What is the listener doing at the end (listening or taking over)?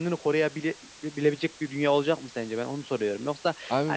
listening